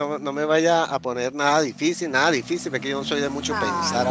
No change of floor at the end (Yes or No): No